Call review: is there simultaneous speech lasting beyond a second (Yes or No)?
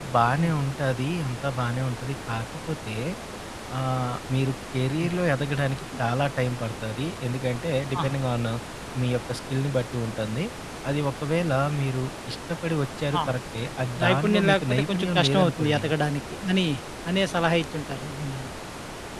Yes